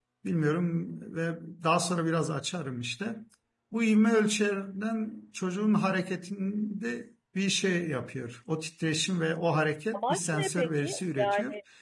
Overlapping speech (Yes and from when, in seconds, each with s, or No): Yes, from 9.9 s